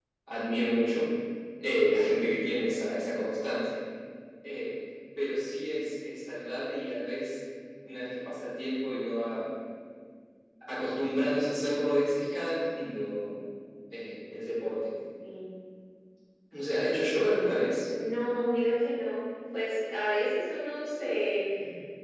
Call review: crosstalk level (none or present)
none